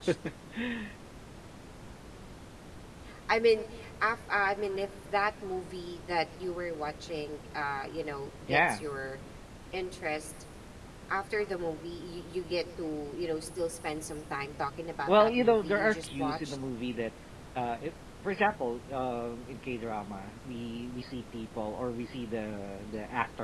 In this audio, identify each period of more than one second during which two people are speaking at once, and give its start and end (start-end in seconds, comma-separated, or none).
15.1-16.6